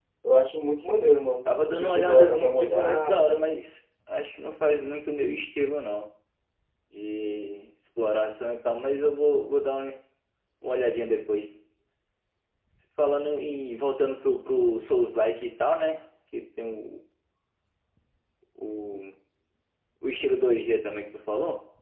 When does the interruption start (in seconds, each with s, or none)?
1.4 s